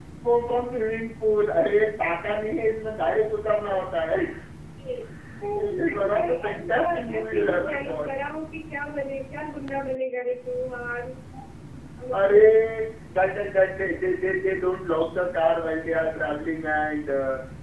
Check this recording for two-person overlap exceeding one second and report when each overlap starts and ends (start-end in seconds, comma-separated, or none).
5.6-8.1